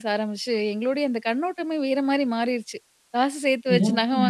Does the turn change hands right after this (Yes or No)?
No